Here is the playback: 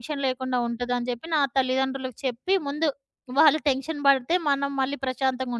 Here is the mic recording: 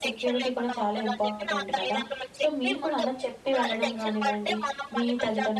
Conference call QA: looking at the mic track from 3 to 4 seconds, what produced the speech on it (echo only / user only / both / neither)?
both